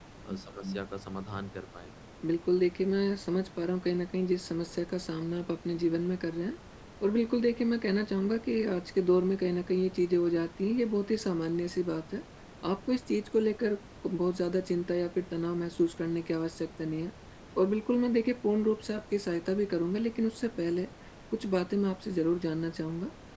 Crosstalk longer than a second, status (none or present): none